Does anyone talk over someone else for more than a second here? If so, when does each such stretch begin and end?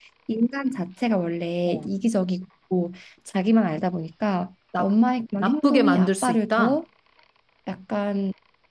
5.4-6.8

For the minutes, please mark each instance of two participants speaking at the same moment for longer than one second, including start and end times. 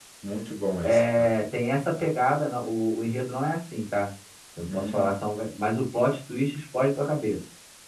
none

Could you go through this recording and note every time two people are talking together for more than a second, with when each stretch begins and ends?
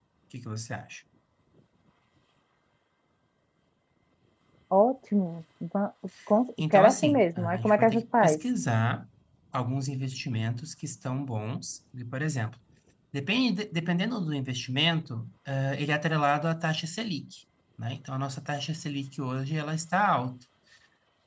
6.7-8.4

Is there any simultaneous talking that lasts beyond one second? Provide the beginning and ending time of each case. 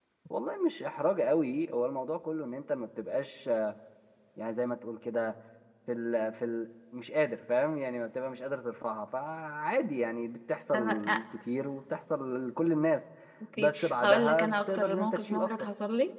13.6-15.7

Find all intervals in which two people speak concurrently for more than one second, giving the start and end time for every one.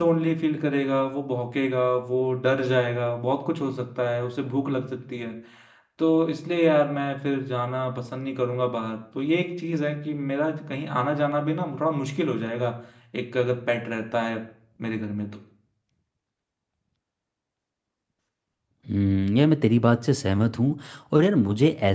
none

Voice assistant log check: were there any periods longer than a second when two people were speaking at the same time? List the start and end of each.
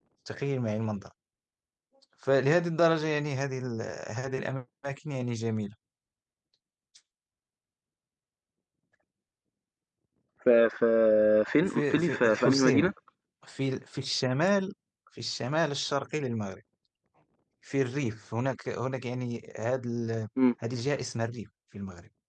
11.7-12.9

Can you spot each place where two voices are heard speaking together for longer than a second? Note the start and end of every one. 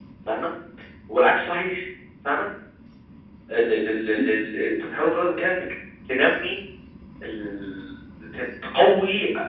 none

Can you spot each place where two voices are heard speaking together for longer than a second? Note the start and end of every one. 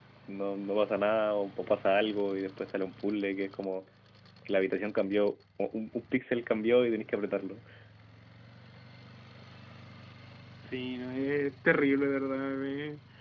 none

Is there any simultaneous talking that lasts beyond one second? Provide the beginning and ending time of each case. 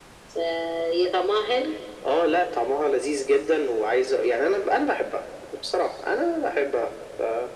none

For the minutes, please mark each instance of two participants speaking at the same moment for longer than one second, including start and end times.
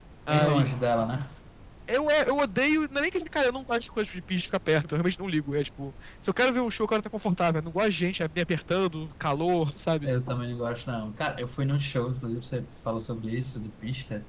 none

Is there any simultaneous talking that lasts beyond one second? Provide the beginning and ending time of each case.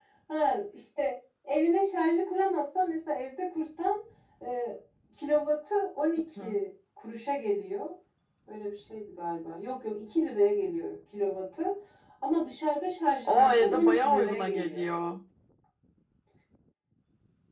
13.2-14.9

